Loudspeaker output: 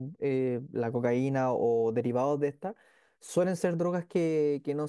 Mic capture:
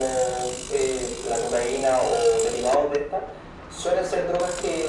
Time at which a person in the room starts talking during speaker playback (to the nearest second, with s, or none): none